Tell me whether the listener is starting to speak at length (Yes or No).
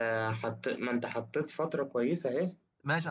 Yes